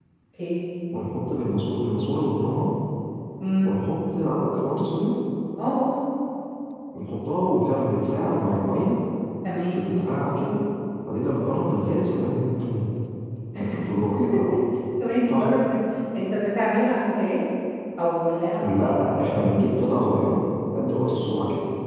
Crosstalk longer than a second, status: none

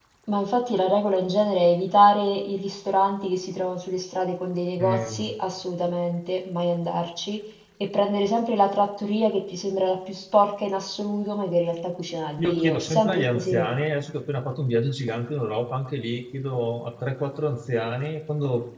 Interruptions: present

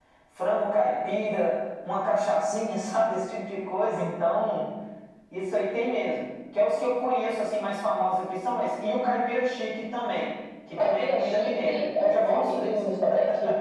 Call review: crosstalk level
present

